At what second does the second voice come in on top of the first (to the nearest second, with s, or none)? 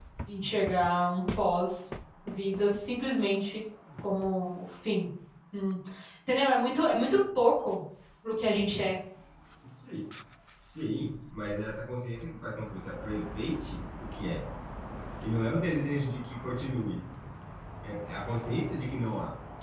none